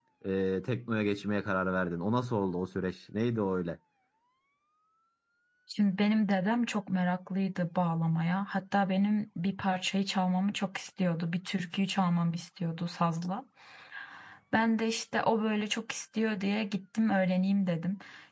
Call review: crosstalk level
none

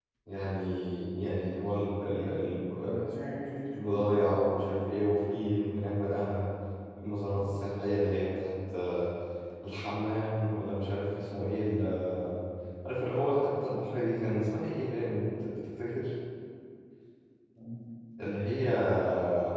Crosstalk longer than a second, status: none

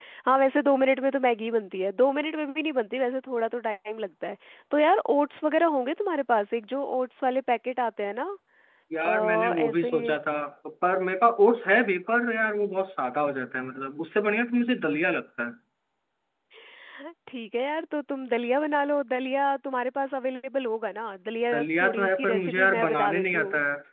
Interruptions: present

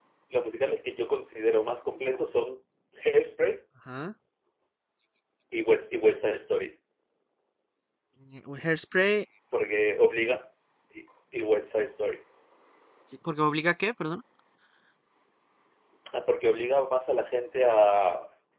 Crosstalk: none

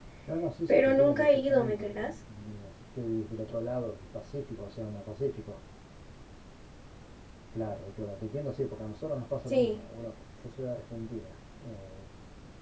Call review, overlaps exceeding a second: present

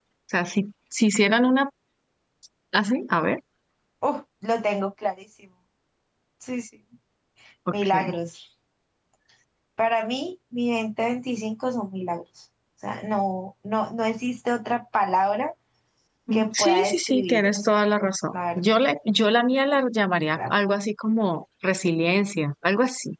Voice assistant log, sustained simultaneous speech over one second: present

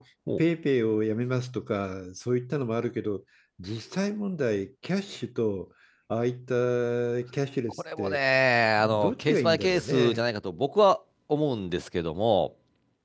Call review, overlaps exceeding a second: present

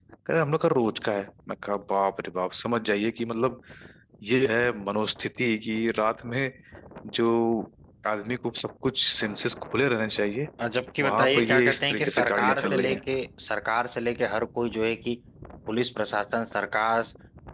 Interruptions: present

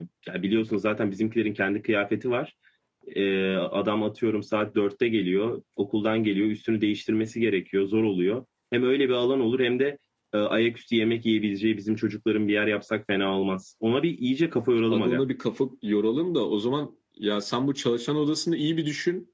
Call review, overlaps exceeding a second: none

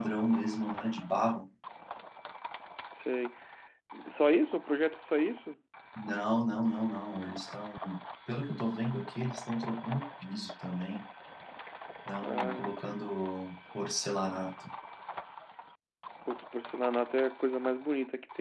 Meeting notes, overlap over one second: none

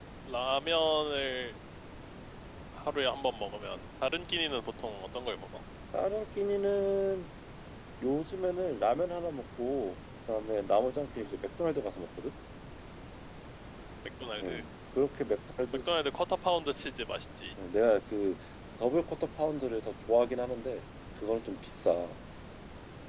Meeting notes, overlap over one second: none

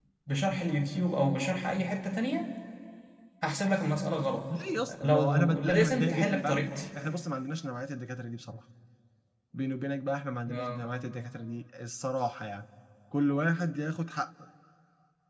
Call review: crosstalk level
present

